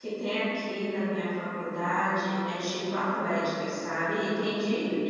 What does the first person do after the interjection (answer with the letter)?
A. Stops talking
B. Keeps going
B